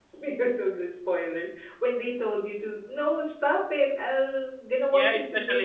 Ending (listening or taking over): taking over